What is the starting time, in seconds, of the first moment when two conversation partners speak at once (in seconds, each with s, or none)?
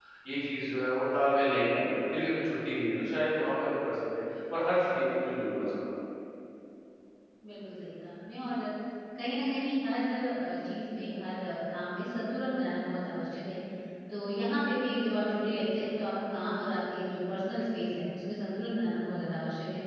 none